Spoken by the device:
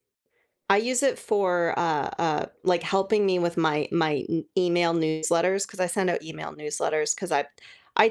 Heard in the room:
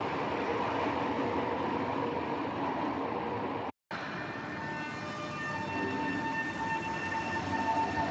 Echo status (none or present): none